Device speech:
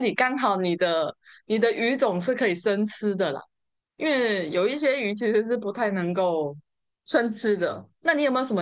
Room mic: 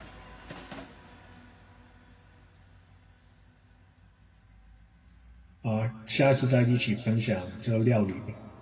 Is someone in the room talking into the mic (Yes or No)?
Yes